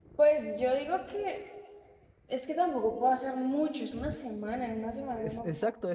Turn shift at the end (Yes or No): Yes